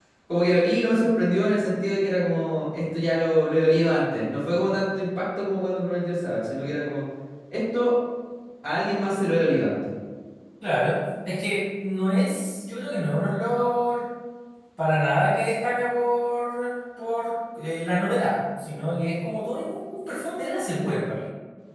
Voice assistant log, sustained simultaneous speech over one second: none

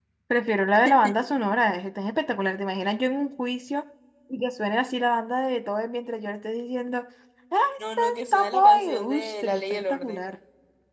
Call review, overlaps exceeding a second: present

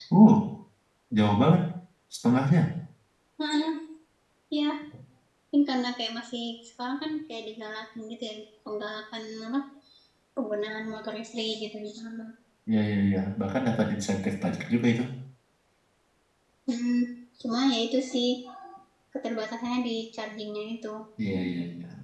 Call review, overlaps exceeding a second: none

